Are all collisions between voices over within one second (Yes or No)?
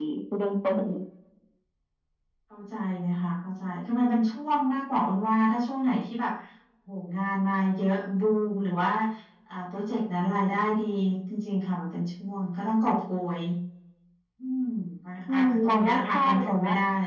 No